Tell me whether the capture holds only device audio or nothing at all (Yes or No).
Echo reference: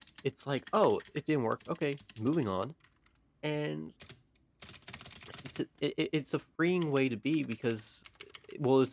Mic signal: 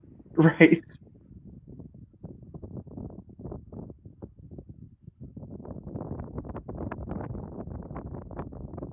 No